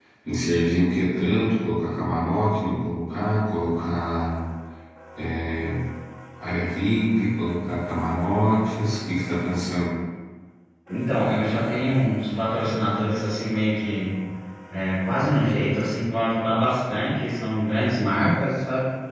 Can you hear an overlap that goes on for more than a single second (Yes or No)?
No